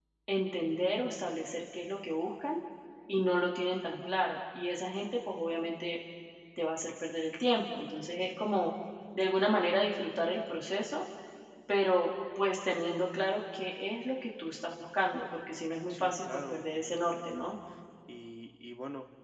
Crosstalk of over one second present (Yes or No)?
Yes